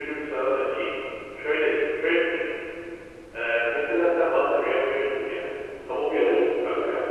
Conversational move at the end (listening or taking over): listening